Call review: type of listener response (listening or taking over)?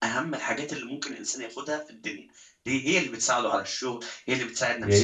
taking over